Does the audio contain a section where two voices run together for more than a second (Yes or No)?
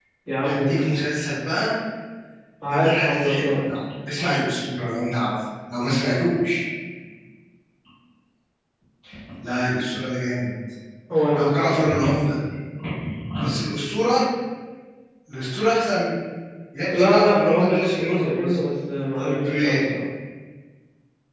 Yes